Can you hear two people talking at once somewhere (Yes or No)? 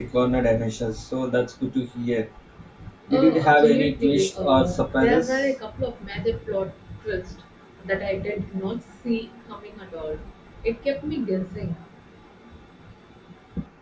Yes